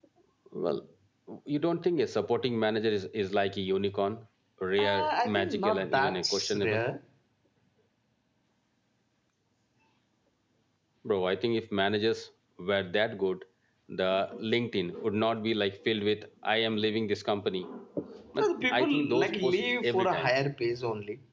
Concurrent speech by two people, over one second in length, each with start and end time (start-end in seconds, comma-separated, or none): 4.8-6.8, 18.4-20.3